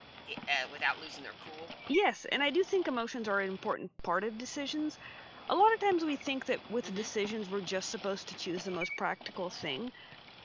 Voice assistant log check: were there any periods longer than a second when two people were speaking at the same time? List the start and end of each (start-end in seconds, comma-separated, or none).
none